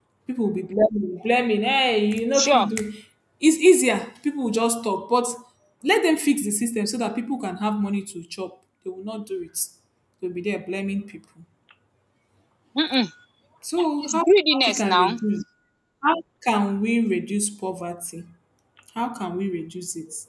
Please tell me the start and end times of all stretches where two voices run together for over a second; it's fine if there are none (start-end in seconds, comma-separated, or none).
13.8-15.2